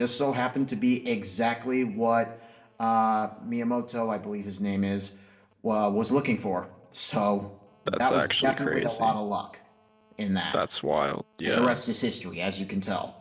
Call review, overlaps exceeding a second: present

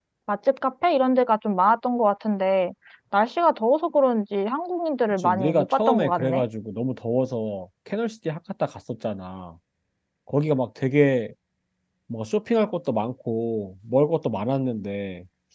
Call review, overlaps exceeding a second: present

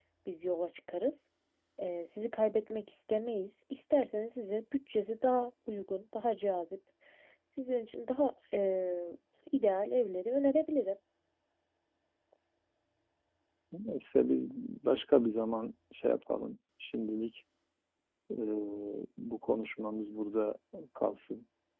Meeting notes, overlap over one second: none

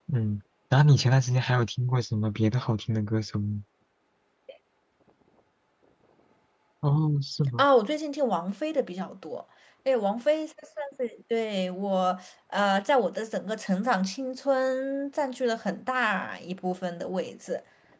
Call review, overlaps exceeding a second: none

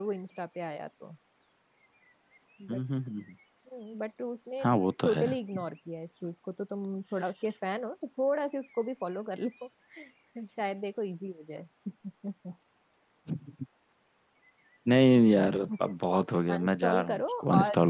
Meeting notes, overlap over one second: present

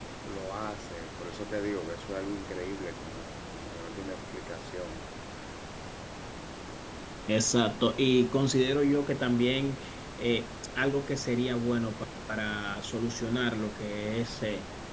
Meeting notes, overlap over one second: none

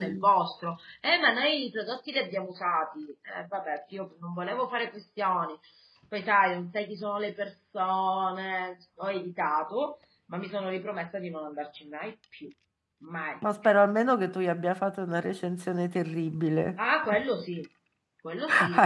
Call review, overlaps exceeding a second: none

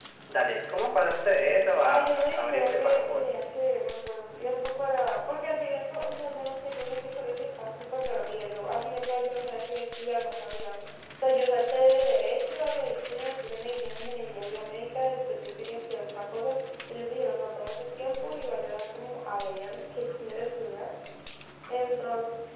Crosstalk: present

